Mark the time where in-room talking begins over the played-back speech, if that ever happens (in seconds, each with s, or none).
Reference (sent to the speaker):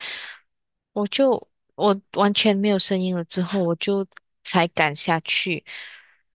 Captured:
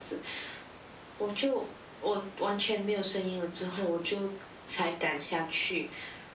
none